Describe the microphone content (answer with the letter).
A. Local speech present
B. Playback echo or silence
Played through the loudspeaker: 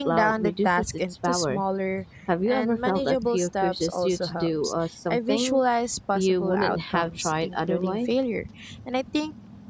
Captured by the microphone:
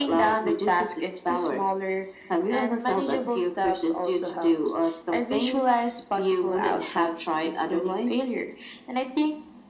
B